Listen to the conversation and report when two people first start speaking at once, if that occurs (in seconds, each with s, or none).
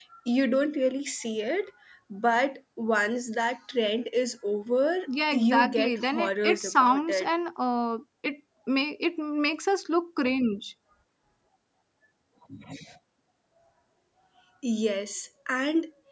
5.3 s